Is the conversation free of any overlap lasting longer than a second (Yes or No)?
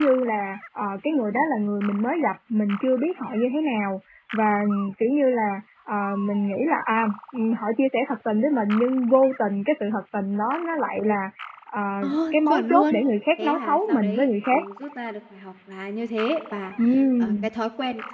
No